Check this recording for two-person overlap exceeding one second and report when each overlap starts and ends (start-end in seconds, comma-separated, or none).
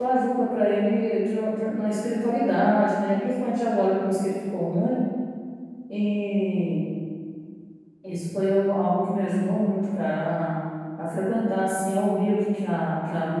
none